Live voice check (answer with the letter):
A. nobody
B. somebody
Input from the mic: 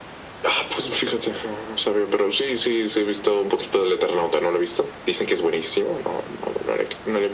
A